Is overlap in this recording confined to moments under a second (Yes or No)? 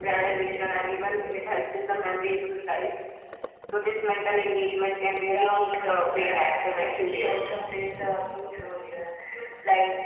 No